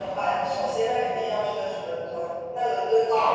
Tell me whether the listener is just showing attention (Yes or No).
Yes